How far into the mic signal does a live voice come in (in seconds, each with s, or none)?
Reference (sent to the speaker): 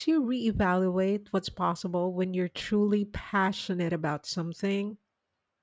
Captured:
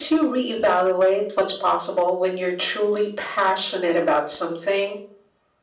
none